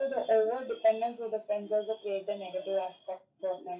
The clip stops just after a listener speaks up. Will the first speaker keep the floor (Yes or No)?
Yes